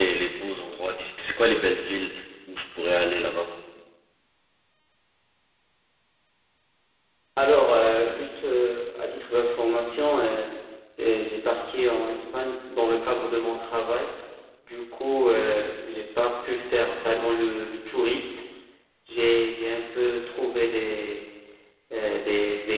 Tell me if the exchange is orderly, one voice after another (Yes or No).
Yes